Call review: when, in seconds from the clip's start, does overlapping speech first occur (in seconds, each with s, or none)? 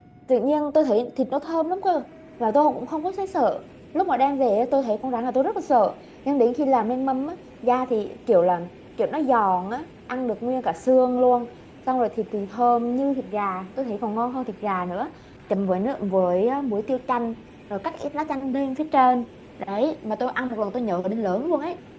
none